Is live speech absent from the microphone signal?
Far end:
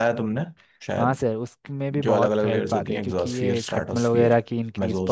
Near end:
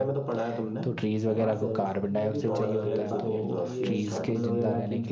No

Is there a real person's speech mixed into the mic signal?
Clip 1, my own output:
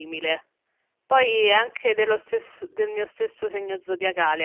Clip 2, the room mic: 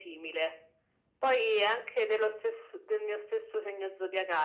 No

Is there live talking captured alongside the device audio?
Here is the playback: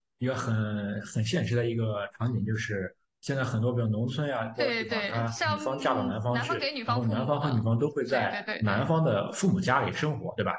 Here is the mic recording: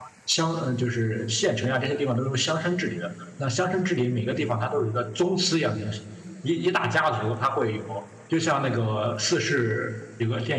Yes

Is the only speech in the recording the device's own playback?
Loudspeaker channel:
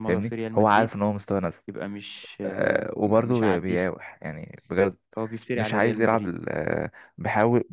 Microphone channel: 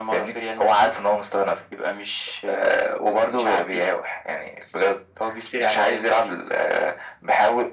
Yes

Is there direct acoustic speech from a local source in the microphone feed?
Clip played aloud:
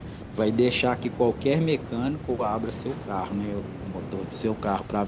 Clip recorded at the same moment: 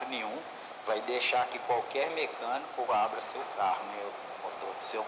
No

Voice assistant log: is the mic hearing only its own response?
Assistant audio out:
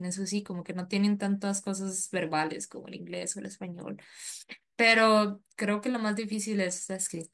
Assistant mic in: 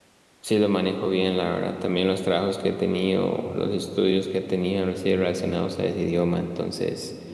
No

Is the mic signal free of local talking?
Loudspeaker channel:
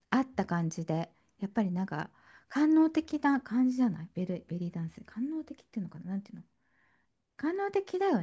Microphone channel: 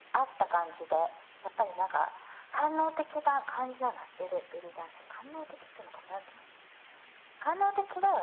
Yes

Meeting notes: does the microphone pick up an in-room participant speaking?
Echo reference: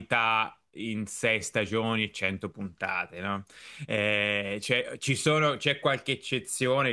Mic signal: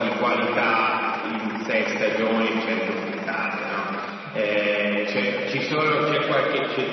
No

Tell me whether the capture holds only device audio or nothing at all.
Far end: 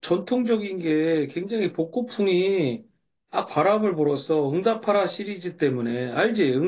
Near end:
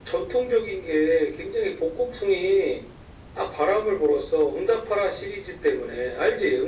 Yes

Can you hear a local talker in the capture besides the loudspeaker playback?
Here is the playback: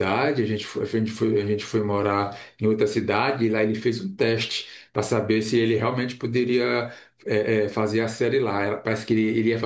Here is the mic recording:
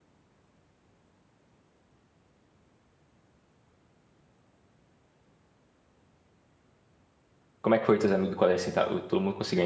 Yes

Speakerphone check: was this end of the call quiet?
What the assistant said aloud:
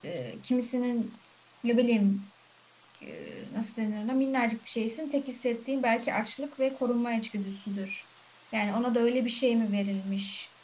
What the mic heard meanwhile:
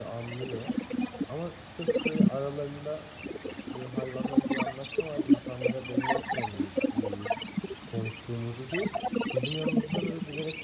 No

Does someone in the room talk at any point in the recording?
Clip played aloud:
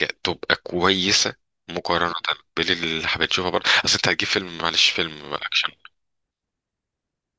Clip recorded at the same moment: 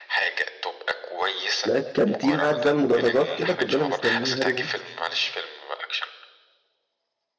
Yes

